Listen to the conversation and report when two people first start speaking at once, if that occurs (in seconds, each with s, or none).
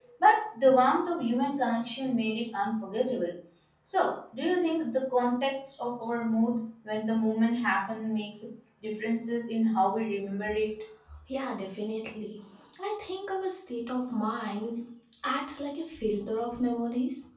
none